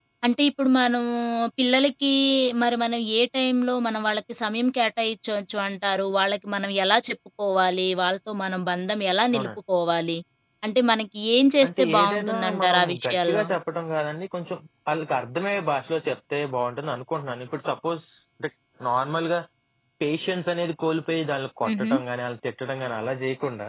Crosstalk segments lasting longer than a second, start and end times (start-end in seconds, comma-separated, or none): 11.6-13.4